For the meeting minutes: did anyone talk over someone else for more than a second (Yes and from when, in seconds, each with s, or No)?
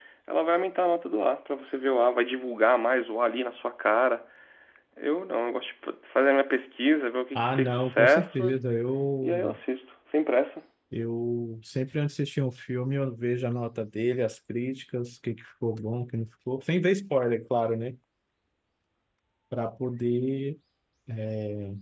Yes, from 7.3 s